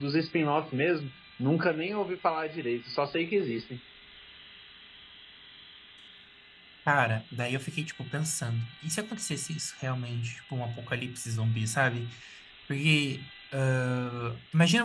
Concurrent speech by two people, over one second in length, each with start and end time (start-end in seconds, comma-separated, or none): none